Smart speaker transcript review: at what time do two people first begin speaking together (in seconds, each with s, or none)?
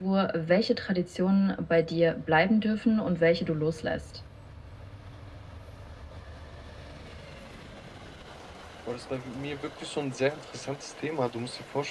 none